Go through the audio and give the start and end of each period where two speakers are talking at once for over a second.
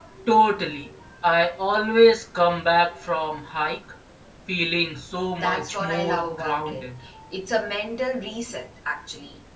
5.4-6.8

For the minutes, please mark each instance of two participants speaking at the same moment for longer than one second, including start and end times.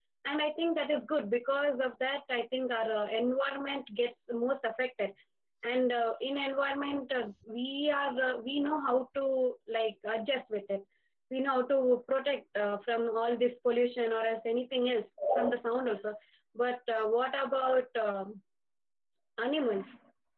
none

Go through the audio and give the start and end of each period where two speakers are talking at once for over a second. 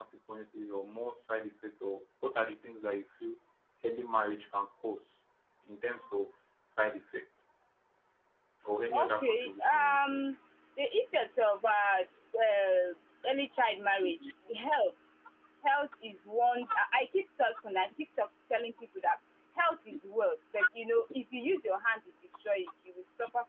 8.9-10.2

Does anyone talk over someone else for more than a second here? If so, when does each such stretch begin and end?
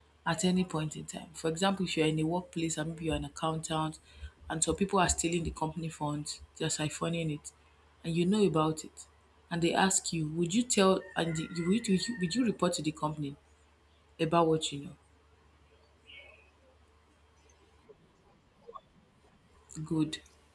none

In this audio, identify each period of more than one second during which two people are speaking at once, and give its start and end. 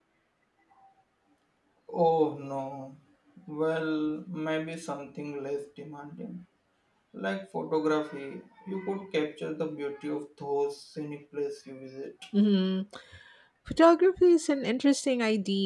none

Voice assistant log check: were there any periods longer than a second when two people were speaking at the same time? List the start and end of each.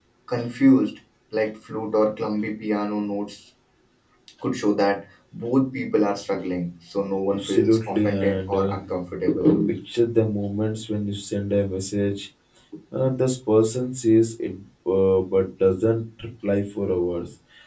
7.3-8.7

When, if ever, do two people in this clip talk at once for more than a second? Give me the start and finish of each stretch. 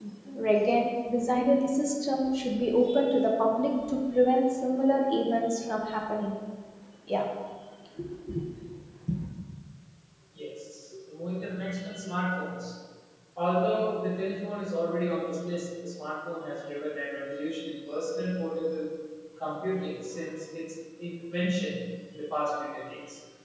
none

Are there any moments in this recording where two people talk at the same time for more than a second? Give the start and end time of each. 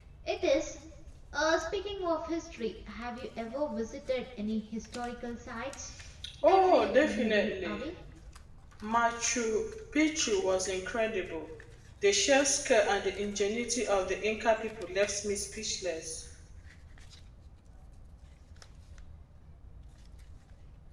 6.4-7.8

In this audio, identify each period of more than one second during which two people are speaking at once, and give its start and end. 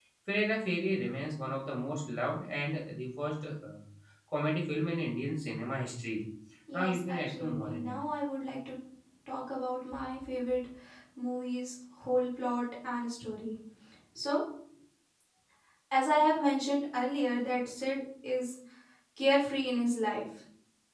6.7-8.0

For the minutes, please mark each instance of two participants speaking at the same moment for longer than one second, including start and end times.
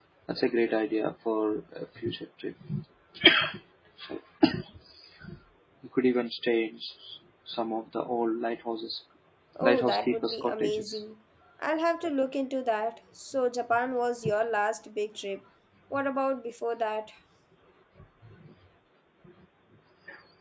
9.6-11.0

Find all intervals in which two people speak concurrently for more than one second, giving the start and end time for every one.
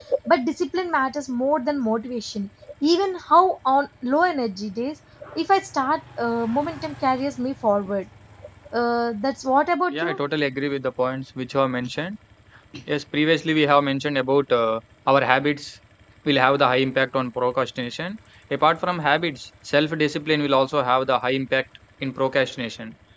none

